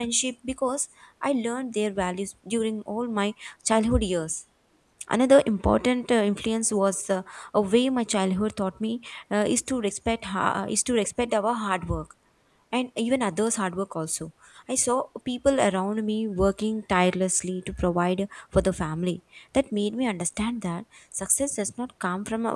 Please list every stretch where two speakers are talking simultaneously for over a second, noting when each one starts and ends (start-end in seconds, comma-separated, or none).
none